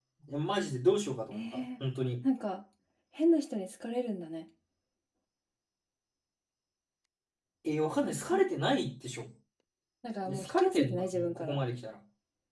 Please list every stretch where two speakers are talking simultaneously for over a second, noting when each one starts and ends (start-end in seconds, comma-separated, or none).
10.3-11.6